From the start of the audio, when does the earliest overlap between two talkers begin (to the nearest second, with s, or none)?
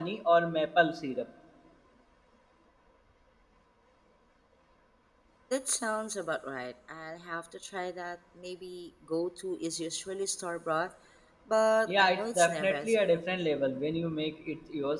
12 s